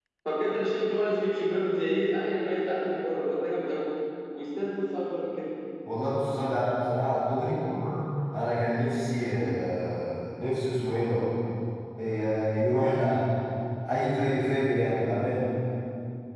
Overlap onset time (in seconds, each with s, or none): none